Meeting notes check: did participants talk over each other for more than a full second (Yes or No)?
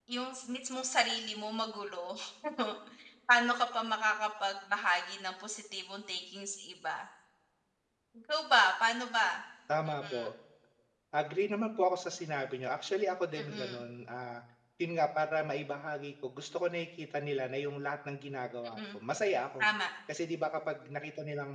No